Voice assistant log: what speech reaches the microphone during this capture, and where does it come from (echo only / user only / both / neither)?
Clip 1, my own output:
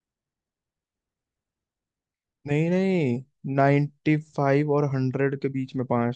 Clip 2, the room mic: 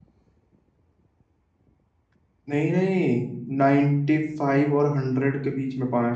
echo only